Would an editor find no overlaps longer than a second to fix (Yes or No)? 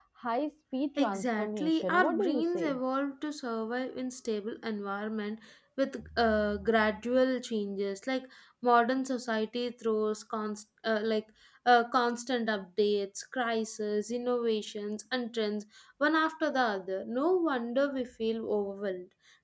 No